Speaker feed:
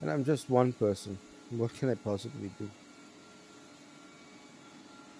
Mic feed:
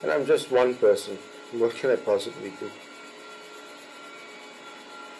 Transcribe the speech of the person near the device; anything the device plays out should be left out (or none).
none